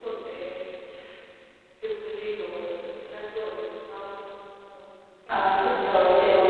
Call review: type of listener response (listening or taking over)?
taking over